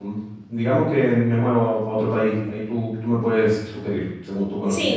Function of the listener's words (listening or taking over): taking over